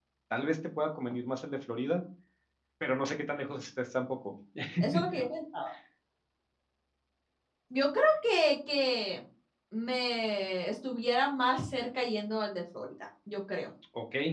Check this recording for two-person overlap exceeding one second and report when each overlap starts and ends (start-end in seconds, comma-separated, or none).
none